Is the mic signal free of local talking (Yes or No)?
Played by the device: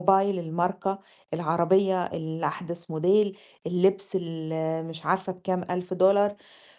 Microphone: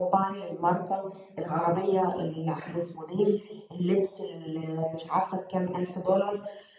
Yes